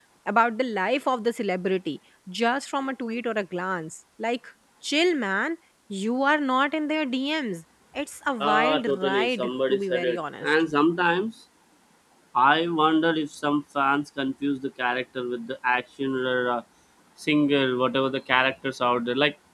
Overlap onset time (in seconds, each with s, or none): 8.4 s